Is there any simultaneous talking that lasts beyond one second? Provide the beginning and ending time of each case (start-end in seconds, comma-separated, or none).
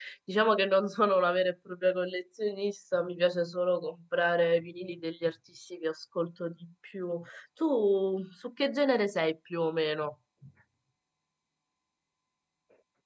none